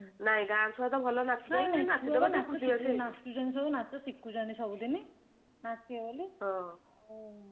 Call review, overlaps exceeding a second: present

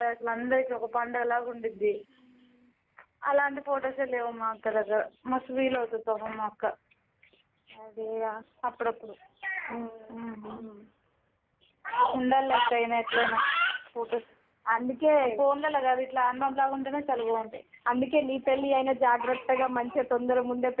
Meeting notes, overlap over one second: none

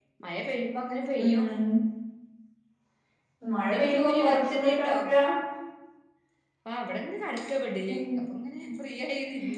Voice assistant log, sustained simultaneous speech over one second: present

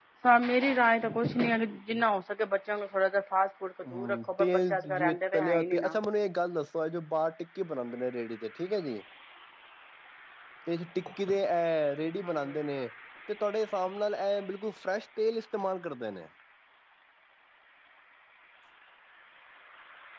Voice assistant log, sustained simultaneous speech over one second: present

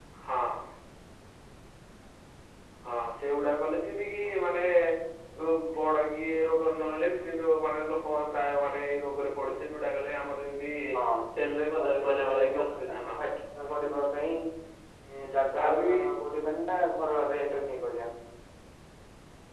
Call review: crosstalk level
present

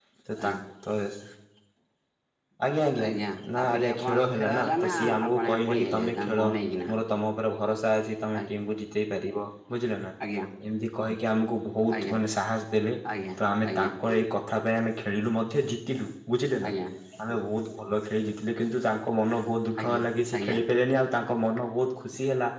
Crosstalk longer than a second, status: present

